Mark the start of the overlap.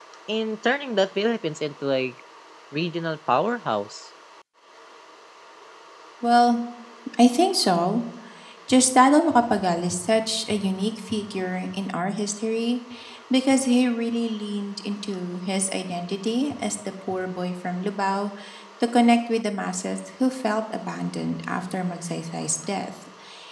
none

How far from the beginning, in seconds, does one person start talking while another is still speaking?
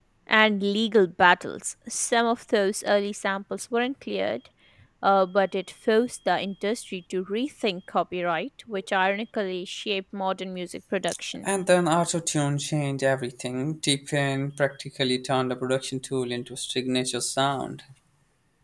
none

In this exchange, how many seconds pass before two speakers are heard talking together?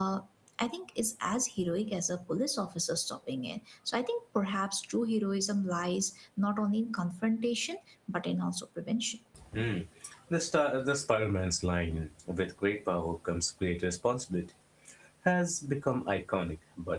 none

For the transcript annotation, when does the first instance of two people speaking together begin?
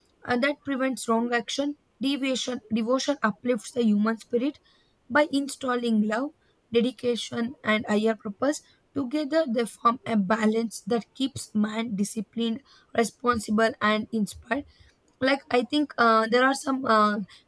none

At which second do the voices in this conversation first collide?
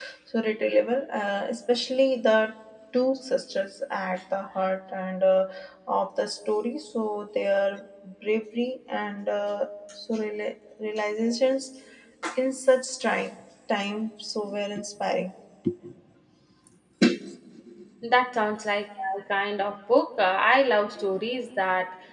none

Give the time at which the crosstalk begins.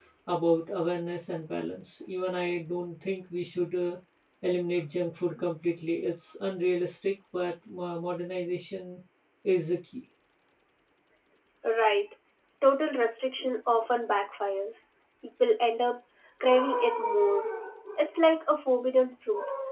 none

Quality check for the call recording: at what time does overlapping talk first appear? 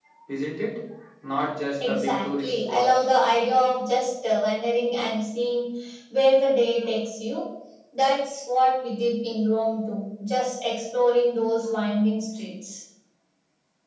2 s

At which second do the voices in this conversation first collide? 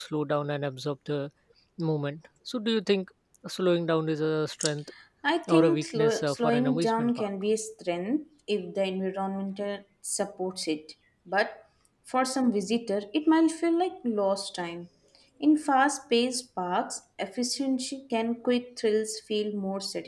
5 s

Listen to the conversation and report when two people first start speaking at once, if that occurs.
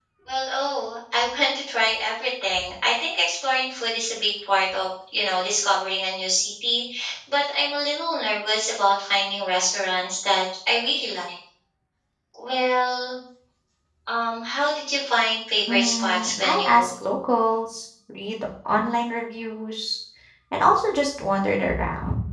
16 s

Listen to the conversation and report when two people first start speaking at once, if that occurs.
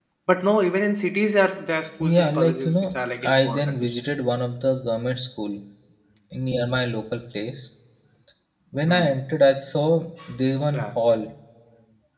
2 s

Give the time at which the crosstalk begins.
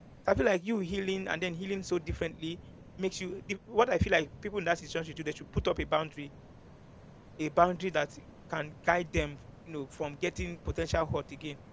none

